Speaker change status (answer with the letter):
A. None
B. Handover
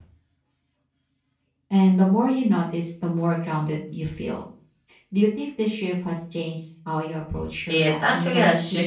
B